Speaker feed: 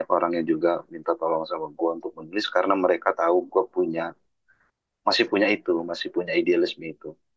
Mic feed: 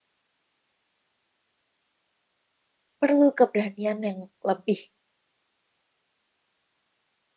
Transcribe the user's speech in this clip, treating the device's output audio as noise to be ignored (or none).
perlu keberanian yang lebih